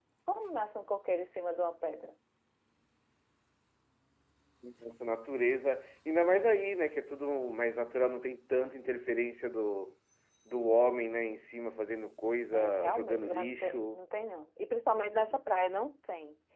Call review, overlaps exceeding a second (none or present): present